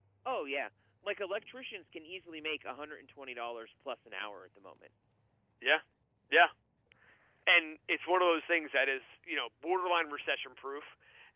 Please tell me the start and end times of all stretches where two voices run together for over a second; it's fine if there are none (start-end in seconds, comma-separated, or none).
none